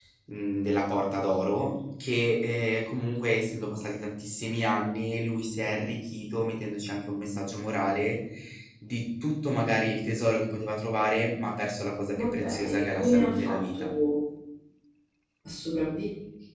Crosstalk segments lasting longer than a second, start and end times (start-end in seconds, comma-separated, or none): 12.2-13.9